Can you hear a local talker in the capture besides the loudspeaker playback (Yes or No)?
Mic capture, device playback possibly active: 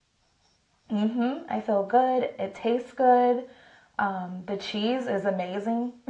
Yes